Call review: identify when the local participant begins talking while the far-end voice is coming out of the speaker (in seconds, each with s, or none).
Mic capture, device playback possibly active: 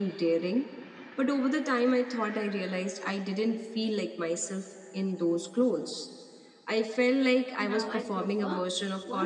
7.6 s